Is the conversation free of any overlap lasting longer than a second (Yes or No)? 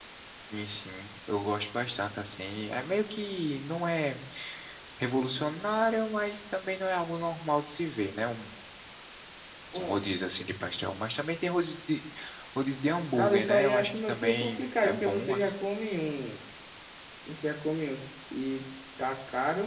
No